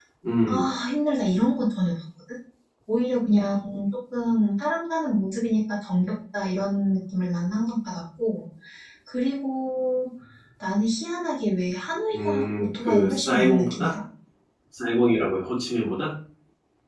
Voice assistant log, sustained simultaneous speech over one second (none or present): present